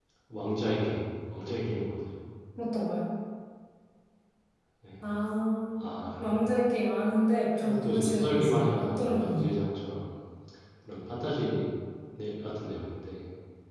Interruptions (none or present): present